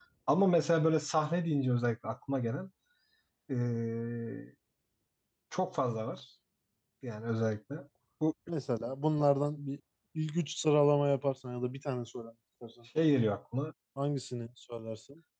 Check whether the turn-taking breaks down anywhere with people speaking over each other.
No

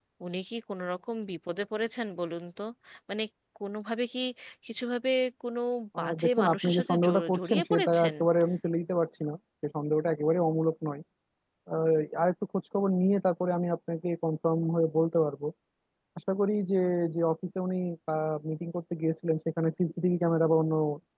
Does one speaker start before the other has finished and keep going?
Yes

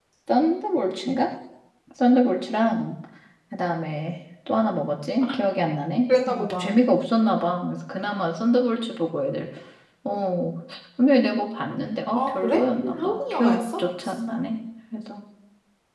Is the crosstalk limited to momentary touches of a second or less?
No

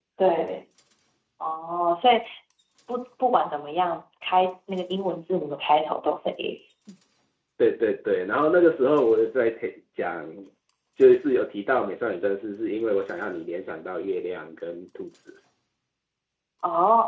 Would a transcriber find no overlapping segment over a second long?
Yes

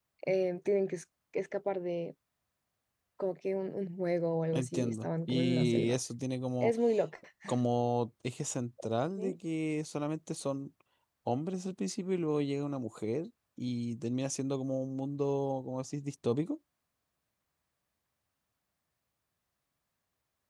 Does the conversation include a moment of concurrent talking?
Yes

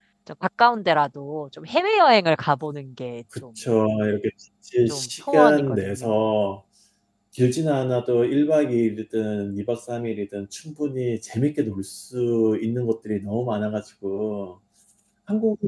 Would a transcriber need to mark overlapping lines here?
Yes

